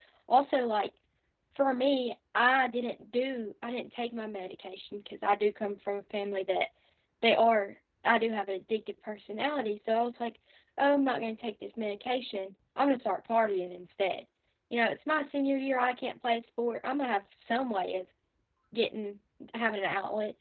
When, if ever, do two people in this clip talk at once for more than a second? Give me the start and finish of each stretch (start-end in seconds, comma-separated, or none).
none